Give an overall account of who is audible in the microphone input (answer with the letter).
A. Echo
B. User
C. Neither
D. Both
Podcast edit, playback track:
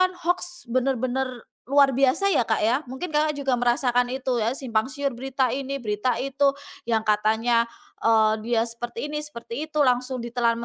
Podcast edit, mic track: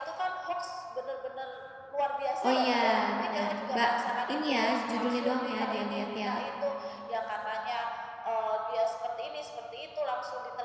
D